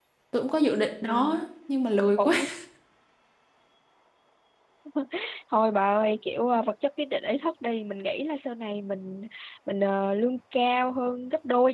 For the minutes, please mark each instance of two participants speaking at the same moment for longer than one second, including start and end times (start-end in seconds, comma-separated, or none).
none